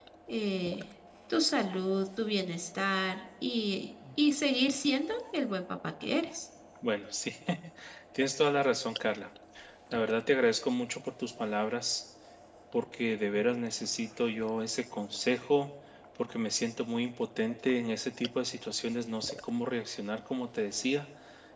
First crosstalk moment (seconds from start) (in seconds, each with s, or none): none